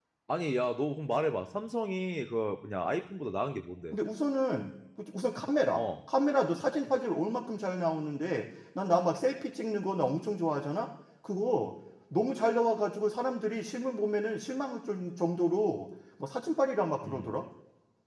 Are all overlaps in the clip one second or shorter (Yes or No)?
Yes